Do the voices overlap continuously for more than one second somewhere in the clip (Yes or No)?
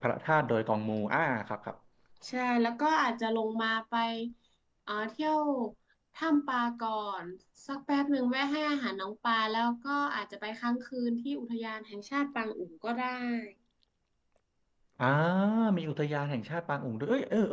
No